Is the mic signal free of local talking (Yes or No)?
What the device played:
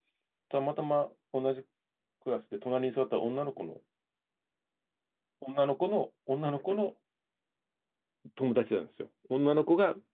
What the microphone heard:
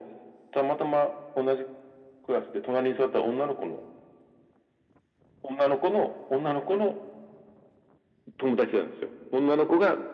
Yes